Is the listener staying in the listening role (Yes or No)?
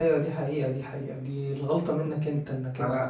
No